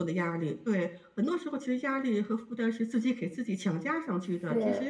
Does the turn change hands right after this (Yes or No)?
No